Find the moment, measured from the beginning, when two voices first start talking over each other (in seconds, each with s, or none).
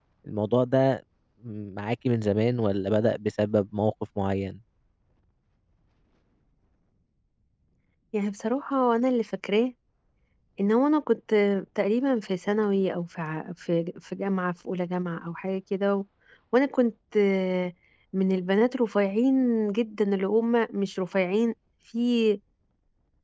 none